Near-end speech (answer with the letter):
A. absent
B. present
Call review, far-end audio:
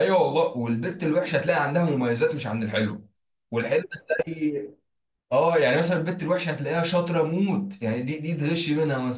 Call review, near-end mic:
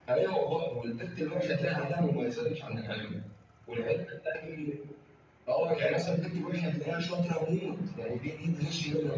A